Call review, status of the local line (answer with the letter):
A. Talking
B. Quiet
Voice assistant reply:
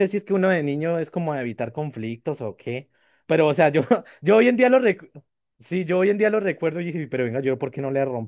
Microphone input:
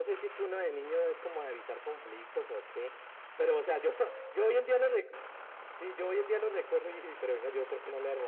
B